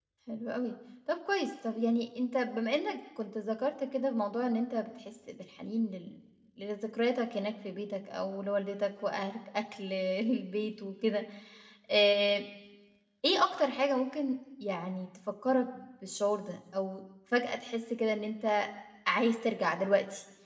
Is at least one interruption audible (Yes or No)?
No